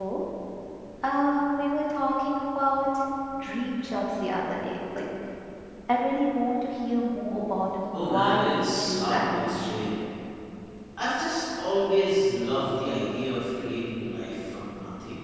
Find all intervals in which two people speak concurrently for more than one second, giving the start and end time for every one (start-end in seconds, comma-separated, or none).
8.0-9.9